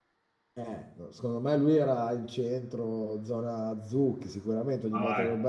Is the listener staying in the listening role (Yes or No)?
No